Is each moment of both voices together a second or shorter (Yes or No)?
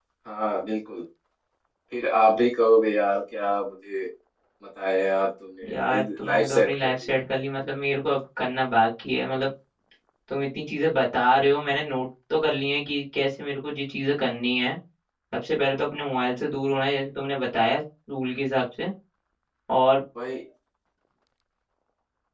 No